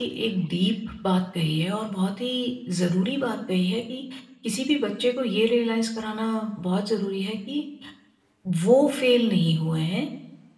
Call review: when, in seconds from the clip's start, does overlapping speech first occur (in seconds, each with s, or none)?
none